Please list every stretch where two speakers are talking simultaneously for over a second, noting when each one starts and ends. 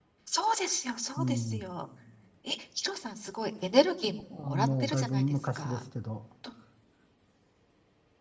4.5-5.8

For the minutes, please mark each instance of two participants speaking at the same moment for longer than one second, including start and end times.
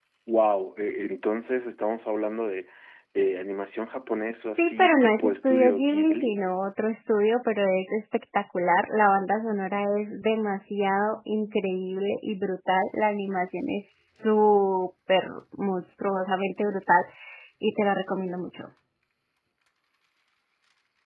4.6-6.3

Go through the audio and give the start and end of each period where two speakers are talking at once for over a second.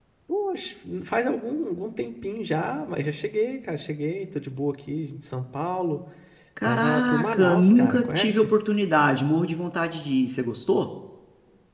6.6-8.5

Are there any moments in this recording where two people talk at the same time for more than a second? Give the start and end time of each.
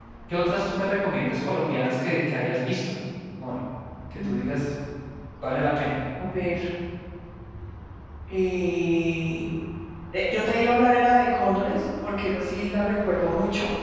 none

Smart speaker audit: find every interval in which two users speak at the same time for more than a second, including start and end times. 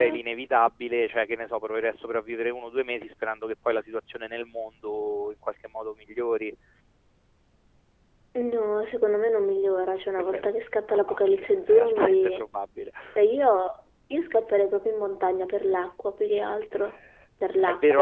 10.9-12.4

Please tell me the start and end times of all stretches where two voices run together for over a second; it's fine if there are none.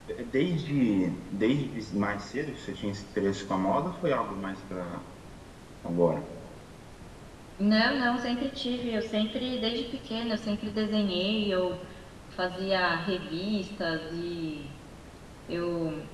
none

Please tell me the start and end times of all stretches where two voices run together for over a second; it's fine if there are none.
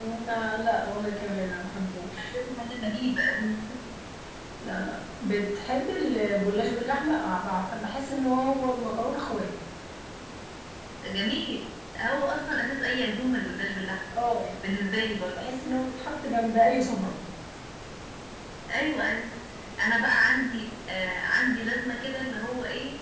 none

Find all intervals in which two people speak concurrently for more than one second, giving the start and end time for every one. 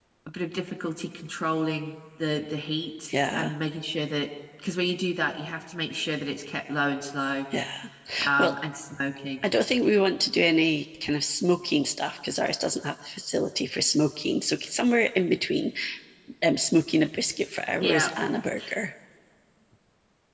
none

